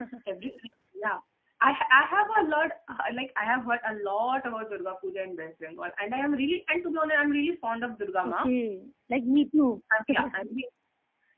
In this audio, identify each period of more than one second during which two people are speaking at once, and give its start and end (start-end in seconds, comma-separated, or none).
none